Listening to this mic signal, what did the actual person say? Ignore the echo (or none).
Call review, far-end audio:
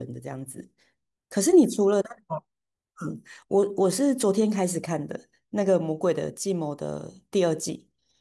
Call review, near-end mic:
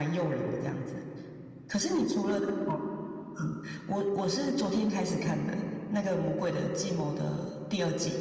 none